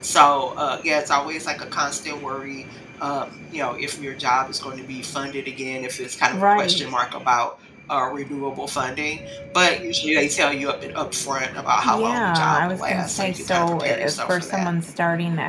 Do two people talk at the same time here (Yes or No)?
Yes